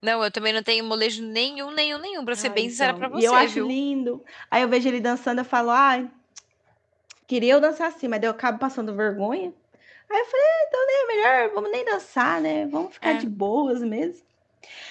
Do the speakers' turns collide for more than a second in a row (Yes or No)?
Yes